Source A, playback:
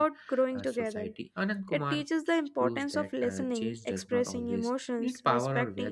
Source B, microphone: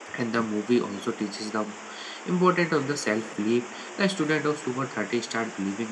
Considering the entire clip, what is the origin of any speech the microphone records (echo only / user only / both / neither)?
user only